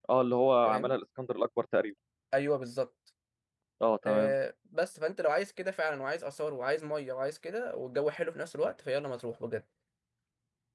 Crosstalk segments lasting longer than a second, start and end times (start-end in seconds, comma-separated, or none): none